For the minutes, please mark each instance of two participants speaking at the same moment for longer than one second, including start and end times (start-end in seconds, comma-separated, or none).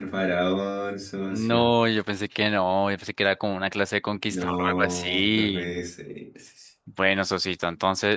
4.3-5.7